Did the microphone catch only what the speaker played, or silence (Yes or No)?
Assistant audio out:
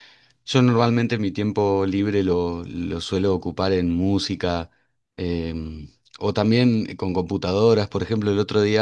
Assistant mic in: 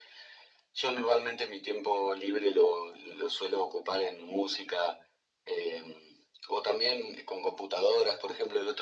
Yes